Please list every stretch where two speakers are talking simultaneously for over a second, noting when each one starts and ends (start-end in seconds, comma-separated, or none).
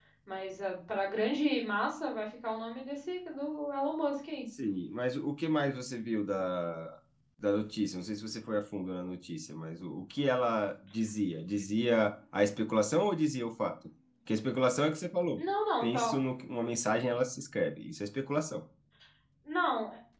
none